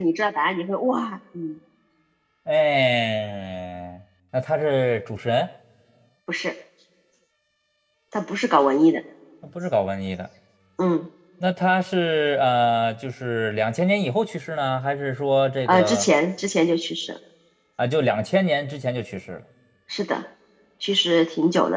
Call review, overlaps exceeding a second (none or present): none